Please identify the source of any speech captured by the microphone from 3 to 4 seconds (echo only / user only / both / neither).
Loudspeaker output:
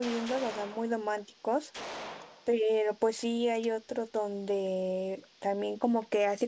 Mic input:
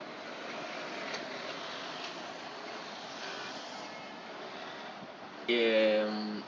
neither